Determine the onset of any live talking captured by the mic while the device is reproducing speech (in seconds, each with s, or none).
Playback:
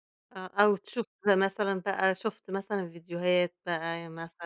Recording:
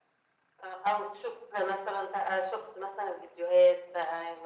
none